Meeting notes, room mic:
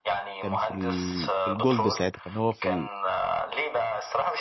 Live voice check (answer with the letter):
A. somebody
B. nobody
A